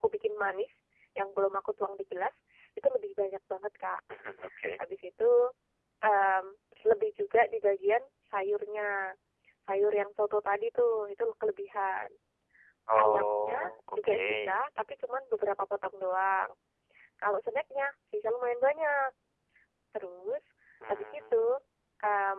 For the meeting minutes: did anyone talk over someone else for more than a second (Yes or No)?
Yes